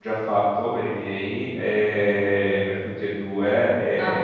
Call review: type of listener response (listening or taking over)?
listening